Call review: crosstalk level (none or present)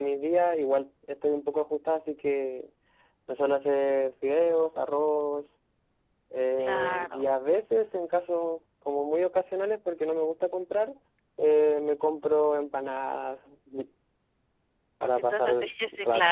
present